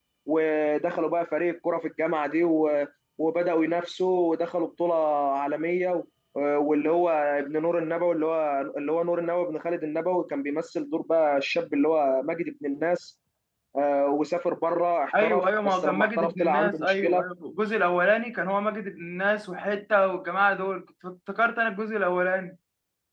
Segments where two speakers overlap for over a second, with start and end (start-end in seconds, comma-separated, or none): 15.2-17.2